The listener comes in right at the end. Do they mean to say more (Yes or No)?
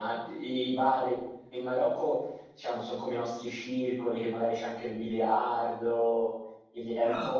No